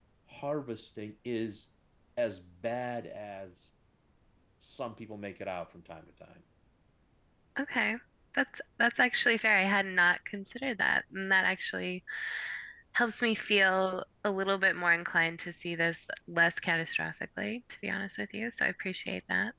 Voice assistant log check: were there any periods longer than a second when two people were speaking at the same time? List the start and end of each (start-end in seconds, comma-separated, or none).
none